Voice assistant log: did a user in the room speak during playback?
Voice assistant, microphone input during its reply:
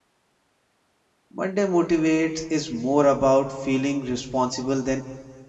Yes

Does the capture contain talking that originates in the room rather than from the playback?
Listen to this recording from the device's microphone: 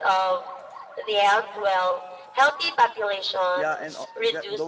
Yes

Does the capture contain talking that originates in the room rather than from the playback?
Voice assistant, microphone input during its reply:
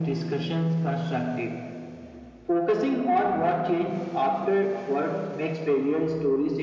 No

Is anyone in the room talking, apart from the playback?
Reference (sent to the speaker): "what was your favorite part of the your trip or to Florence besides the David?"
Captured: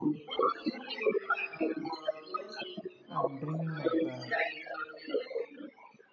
Yes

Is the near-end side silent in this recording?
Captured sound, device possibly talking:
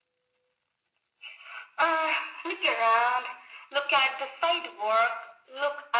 Yes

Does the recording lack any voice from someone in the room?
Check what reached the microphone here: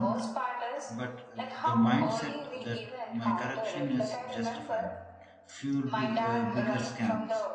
No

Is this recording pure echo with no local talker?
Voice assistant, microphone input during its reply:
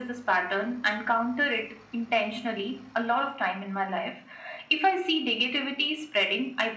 Yes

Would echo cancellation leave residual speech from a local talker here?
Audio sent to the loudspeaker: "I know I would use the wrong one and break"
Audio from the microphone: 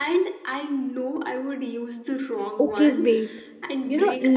Yes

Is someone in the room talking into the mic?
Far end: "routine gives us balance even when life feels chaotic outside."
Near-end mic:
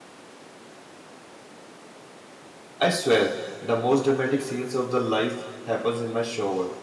Yes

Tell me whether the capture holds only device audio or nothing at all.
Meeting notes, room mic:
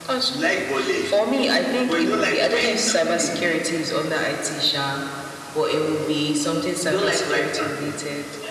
Yes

